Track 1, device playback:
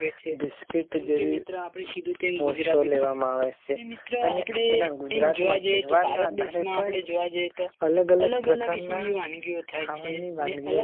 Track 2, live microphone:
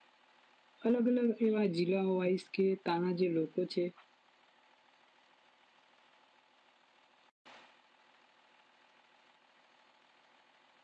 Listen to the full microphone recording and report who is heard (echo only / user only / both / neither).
user only